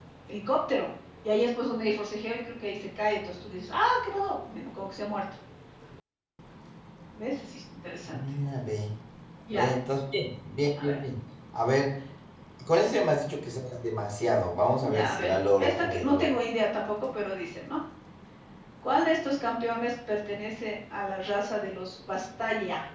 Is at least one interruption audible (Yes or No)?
Yes